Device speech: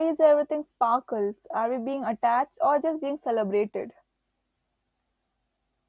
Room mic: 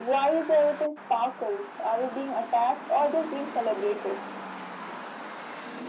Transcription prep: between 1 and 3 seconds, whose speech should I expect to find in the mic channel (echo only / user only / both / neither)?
echo only